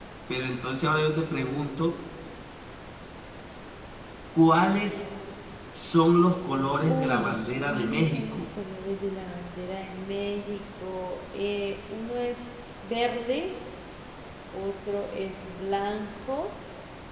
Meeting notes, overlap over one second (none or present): present